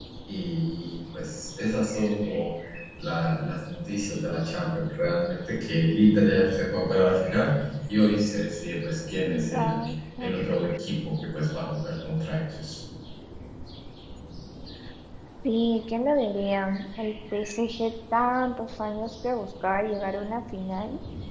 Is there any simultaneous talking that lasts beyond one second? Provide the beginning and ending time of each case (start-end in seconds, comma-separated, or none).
none